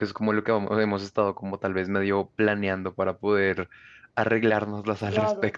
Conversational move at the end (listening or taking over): taking over